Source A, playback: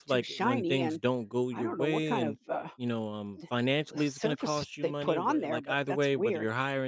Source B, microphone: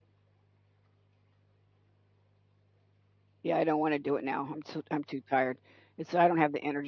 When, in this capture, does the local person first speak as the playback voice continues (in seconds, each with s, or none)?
3.4 s